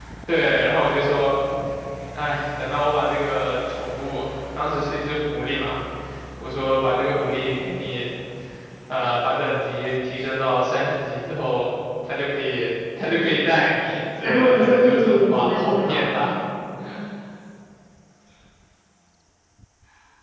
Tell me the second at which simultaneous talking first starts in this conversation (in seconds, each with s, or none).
14.2 s